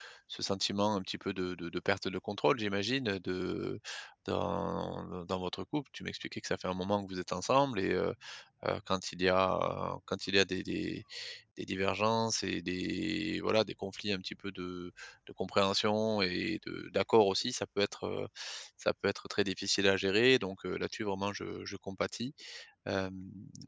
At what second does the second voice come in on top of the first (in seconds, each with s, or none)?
none